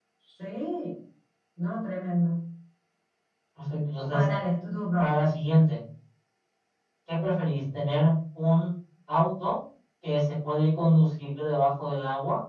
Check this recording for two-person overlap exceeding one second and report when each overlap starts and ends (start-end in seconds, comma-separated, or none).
none